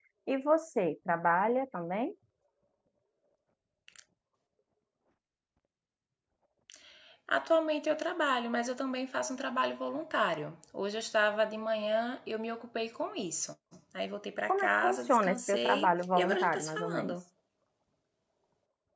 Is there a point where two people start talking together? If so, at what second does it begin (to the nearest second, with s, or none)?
14 s